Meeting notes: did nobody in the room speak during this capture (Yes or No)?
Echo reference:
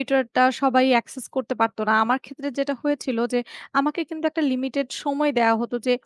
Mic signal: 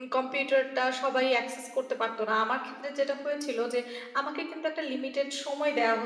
Yes